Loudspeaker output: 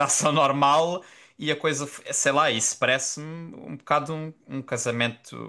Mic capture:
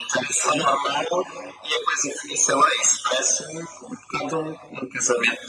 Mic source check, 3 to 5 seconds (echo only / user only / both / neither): echo only